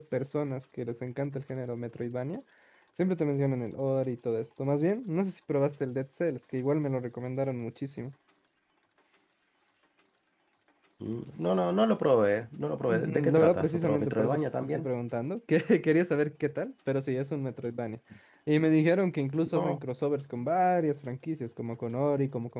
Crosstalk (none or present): present